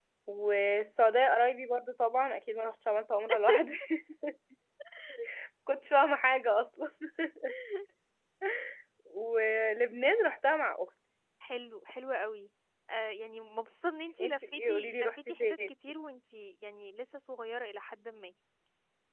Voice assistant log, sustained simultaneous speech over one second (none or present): present